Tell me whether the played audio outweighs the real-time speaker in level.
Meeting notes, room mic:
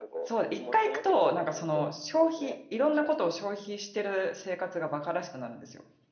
No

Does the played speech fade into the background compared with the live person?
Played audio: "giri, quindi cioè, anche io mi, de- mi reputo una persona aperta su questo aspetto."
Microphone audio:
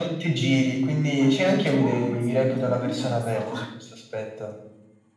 No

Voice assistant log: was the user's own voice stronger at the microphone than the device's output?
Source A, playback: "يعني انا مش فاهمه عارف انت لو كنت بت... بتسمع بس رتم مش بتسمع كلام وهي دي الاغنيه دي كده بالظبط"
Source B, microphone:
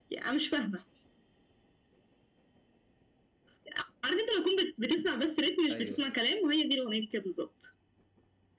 No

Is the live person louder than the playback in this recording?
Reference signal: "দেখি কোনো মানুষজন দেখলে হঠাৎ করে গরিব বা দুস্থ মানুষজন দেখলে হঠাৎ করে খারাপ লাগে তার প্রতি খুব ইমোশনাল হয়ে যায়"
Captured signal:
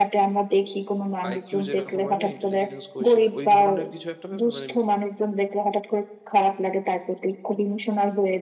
No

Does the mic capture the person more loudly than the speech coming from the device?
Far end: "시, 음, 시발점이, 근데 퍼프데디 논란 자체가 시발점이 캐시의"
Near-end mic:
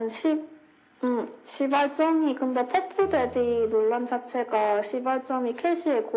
No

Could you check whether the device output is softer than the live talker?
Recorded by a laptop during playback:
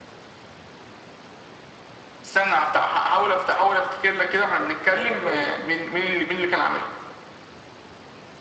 No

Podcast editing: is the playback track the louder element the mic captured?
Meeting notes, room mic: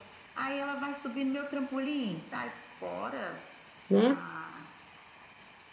No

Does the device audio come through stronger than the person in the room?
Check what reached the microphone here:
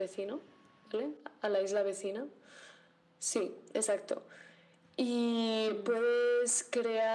Yes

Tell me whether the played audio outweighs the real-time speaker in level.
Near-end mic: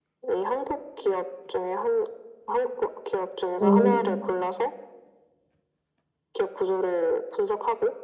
No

